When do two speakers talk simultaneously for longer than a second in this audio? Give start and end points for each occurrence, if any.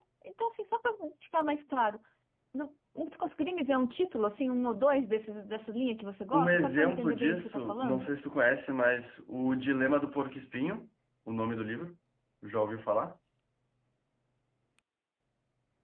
6.3-8.1

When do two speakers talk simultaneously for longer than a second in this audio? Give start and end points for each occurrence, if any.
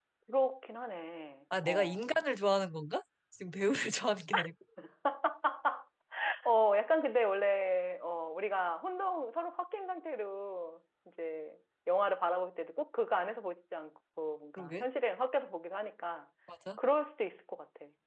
none

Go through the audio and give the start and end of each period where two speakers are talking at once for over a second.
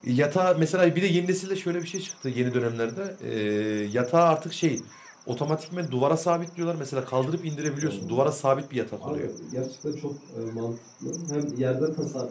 none

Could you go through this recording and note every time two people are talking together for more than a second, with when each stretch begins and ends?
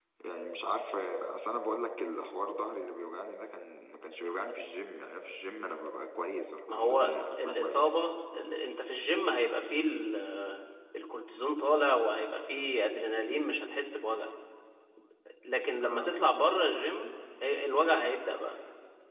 6.7-7.9

